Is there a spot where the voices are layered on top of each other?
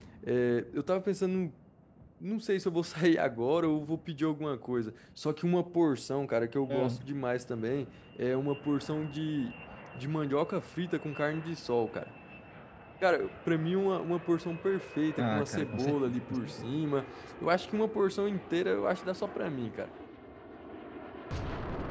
Yes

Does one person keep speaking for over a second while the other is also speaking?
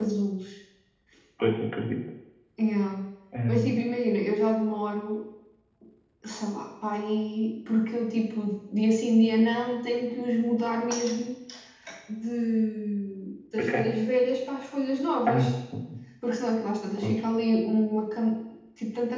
No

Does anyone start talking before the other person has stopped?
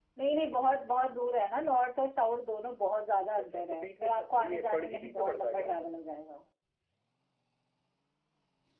Yes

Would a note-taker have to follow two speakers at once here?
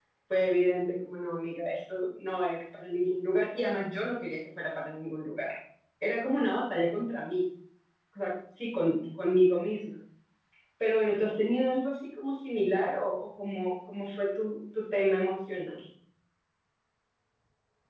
No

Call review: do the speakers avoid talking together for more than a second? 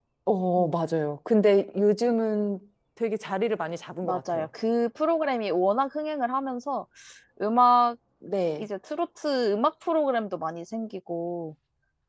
Yes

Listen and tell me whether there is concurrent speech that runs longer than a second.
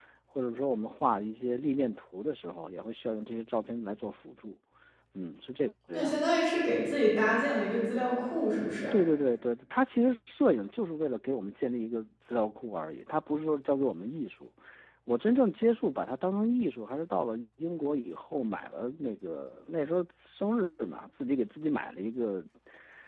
No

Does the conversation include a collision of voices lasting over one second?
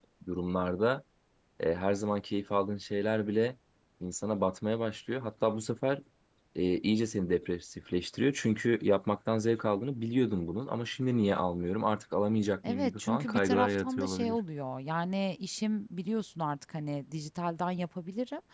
Yes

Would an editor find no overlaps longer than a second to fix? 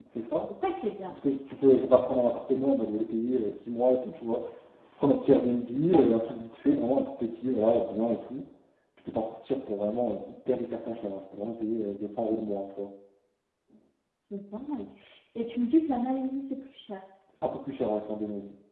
Yes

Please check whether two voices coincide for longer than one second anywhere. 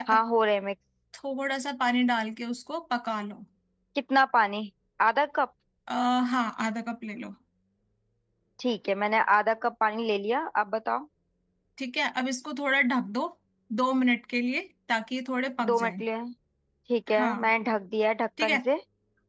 No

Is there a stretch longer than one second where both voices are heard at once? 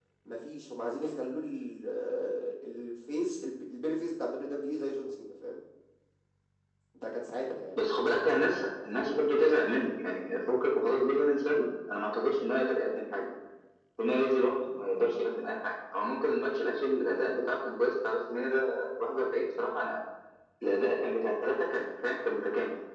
No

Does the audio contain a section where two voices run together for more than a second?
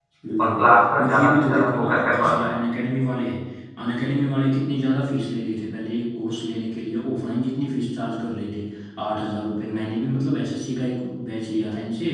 Yes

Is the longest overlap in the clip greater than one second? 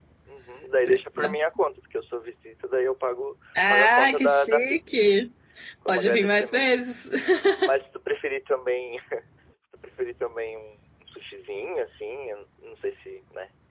Yes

